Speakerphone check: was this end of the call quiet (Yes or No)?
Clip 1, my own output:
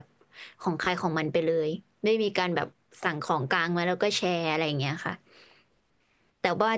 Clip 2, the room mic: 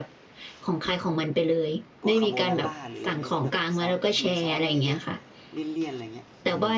No